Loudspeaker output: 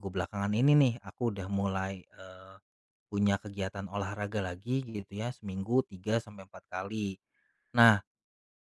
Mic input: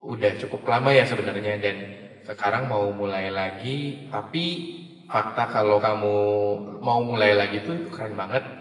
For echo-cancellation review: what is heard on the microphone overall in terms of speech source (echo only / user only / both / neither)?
user only